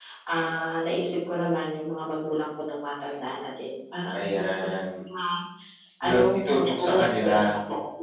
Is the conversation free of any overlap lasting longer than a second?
No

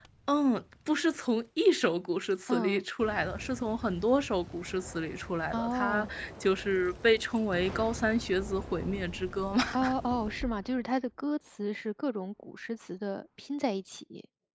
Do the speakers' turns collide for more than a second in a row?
No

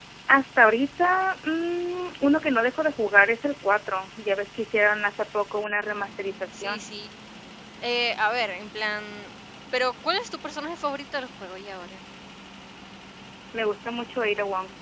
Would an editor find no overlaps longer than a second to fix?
Yes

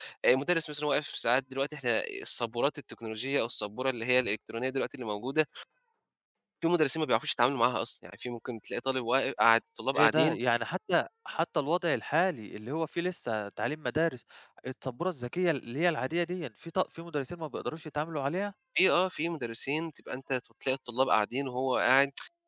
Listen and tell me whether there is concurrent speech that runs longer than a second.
No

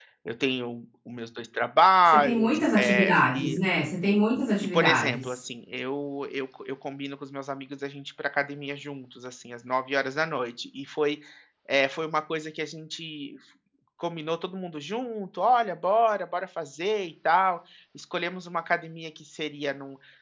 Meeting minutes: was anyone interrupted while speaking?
Yes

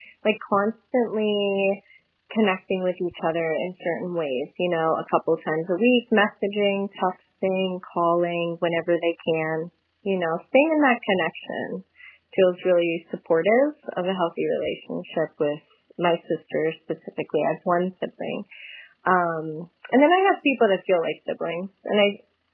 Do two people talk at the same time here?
No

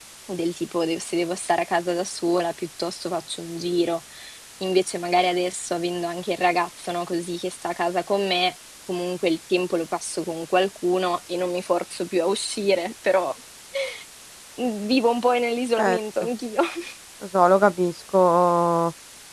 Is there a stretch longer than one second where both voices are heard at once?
No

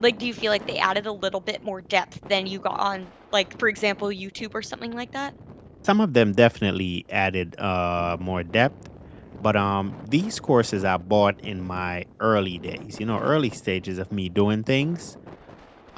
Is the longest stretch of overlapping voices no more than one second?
Yes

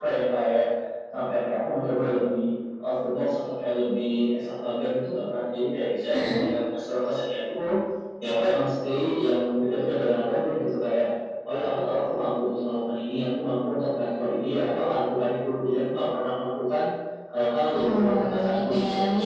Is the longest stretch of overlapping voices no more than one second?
No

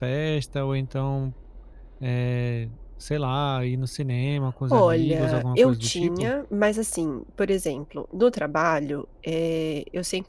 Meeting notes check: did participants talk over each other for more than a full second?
Yes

